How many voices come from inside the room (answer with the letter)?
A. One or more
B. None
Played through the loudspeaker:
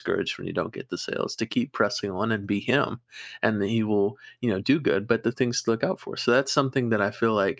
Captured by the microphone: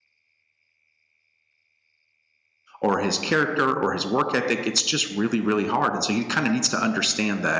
A